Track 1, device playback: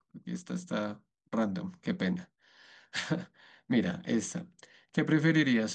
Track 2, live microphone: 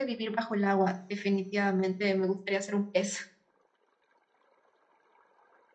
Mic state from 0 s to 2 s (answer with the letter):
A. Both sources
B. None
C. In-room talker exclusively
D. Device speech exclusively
C